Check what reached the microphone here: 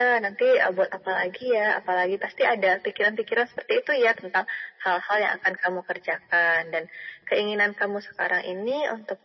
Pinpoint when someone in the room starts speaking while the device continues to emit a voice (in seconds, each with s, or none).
none